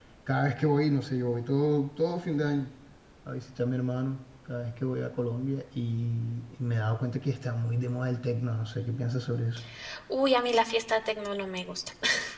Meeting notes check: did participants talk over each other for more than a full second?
No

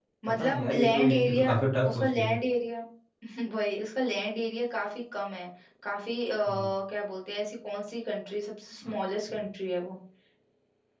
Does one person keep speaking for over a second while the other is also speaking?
Yes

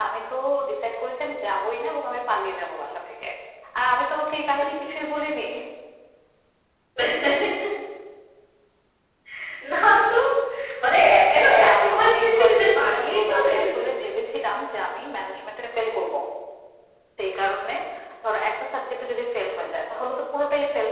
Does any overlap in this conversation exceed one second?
Yes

